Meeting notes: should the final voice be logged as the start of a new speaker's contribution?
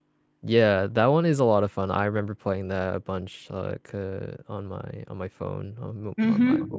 Yes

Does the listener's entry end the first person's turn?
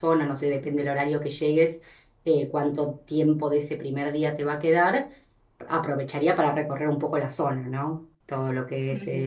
No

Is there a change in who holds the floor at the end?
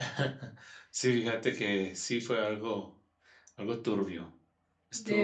No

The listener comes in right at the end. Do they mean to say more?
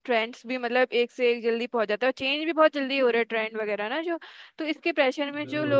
No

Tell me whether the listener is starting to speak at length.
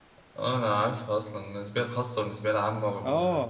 Yes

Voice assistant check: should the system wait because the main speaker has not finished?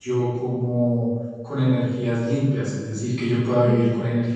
Yes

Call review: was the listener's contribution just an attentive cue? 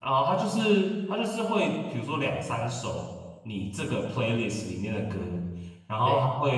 Yes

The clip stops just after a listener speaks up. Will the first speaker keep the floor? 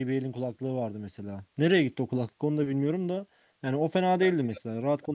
Yes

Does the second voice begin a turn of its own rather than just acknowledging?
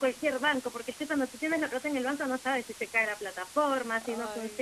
No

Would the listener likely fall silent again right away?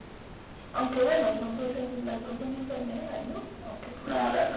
No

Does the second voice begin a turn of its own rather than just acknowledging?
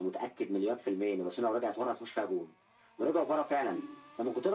No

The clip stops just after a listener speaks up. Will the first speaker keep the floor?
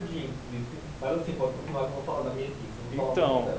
No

